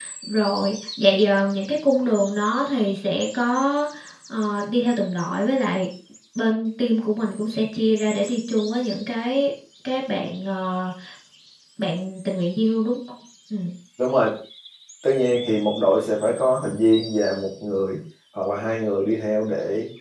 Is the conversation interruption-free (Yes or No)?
Yes